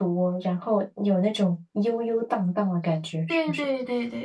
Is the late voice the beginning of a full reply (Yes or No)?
Yes